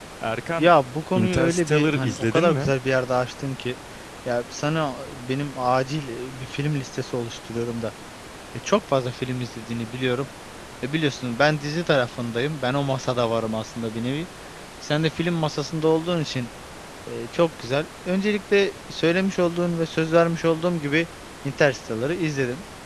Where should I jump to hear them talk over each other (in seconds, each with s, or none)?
1.1 s